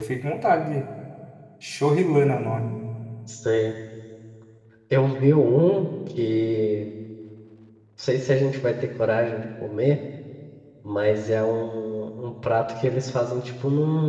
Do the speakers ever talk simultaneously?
No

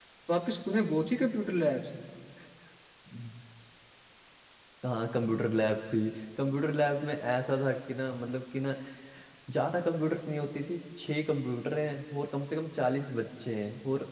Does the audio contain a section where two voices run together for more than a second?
No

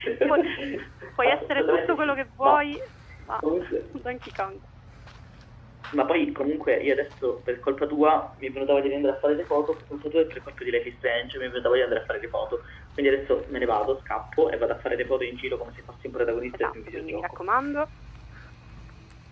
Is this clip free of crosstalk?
No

